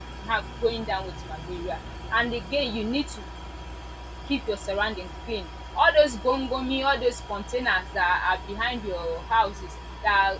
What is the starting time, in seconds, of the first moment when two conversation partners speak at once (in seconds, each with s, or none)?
none